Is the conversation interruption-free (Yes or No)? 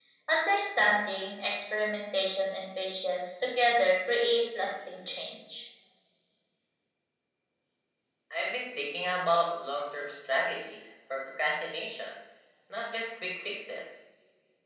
Yes